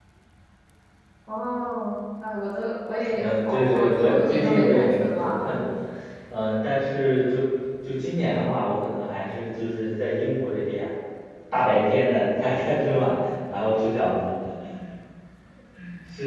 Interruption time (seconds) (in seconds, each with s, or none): 3.0 s